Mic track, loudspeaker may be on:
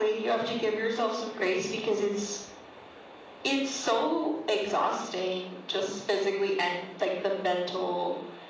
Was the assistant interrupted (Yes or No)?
No